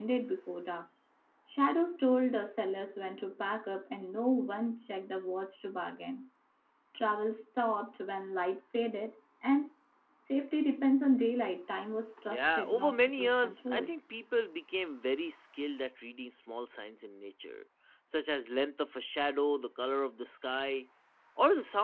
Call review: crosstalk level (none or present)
present